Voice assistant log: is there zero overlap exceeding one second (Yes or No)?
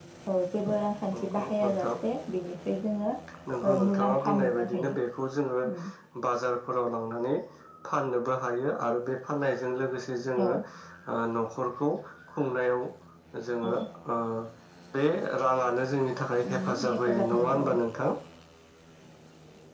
No